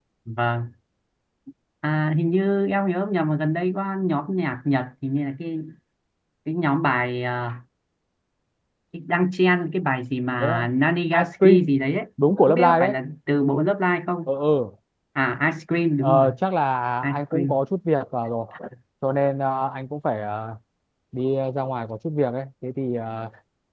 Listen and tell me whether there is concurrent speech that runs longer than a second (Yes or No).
No